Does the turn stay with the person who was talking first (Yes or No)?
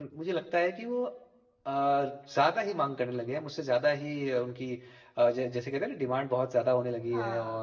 Yes